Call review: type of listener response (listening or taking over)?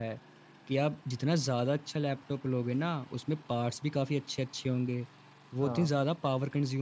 listening